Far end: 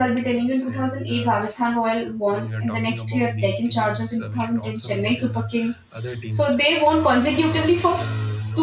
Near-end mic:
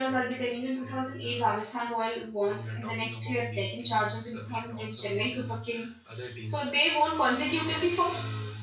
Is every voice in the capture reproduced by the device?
Yes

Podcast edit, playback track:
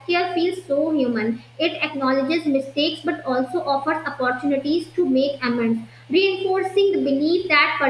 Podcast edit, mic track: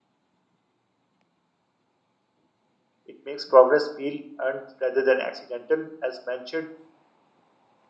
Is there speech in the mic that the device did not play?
Yes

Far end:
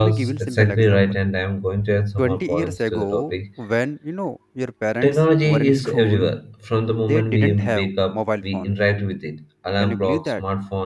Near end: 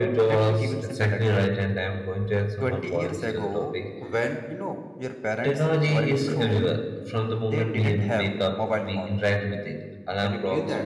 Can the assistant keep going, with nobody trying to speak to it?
Yes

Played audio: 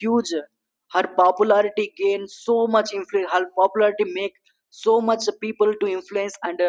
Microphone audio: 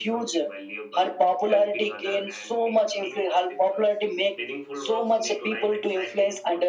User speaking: Yes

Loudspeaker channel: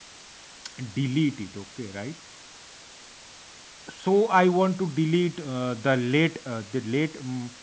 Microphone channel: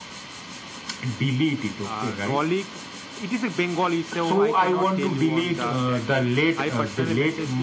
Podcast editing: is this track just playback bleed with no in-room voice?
No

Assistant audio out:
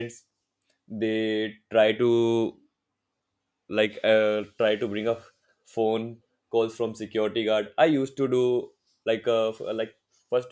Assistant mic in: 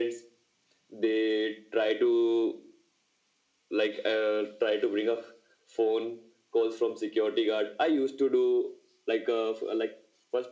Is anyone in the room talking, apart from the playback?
No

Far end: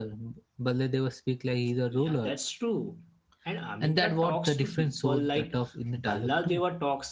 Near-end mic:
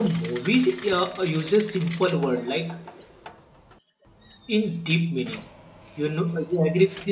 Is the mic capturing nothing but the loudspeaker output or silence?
No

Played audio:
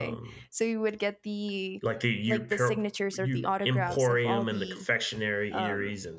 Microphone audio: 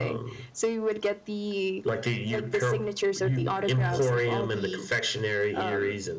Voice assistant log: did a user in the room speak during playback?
No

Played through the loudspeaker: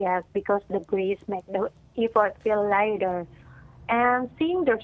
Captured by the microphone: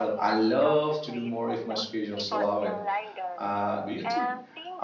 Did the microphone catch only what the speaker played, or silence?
No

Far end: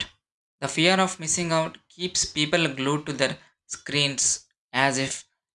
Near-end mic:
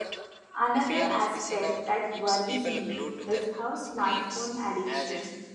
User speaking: Yes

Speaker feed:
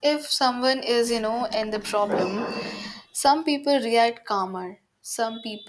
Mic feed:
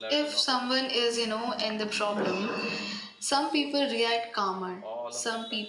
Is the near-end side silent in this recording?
No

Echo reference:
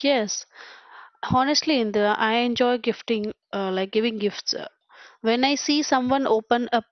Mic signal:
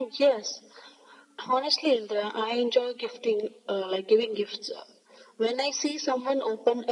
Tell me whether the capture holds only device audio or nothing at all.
Yes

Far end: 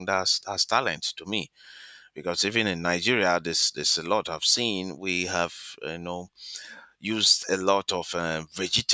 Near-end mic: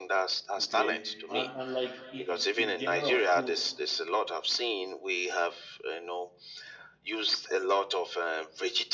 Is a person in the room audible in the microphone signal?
Yes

